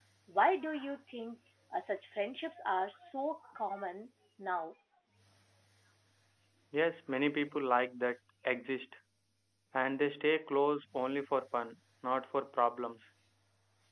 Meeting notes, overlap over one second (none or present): none